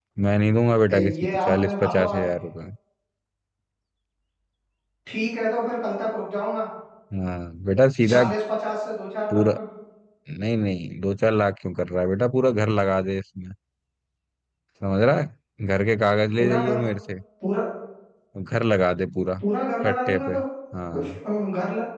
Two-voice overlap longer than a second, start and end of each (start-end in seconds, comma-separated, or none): 0.9-2.3